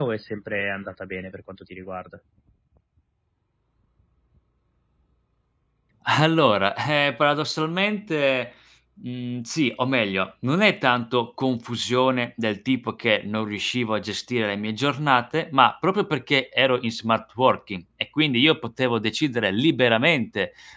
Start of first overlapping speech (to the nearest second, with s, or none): none